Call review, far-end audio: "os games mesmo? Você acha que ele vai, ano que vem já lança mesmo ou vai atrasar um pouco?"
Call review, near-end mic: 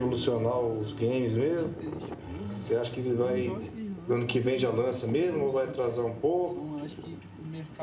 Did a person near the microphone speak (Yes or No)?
Yes